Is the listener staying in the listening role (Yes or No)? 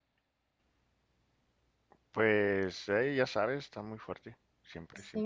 No